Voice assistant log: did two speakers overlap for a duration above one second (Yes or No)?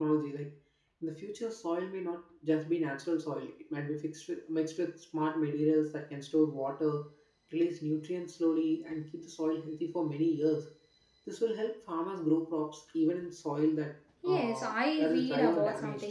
Yes